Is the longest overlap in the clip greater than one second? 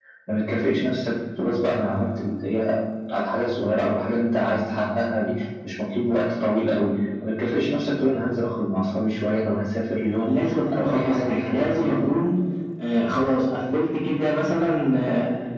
Yes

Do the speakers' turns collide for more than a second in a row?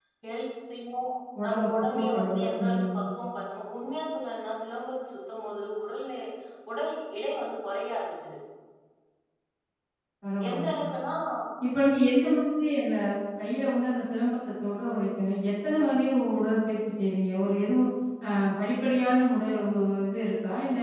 Yes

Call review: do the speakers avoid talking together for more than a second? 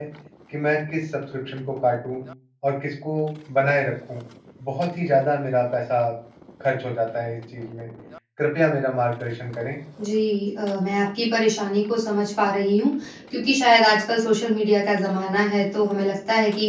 Yes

